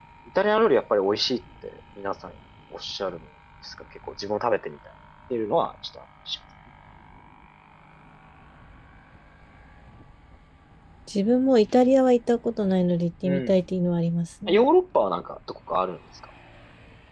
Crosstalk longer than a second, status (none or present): none